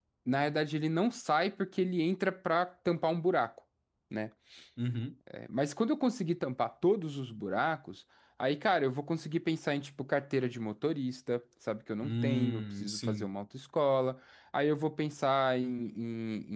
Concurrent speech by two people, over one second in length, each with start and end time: 12.0-13.3

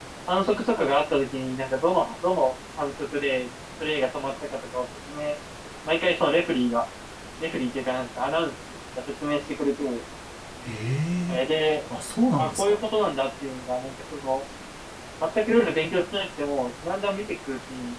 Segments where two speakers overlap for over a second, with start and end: none

